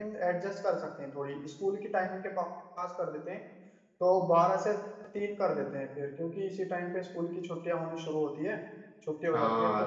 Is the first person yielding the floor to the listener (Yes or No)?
Yes